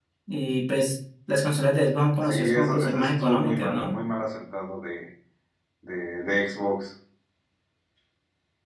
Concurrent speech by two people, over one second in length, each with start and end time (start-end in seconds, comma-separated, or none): 2.2-4.0